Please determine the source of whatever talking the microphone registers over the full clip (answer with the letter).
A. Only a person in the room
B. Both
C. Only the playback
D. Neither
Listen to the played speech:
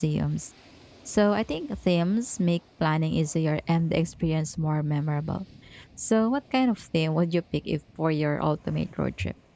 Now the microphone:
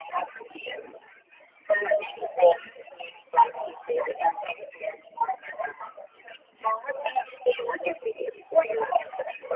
C